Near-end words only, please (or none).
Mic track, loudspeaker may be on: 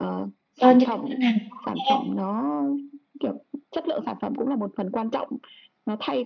cho những ngân hàng tiếp theo.